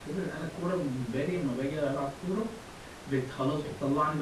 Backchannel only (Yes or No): Yes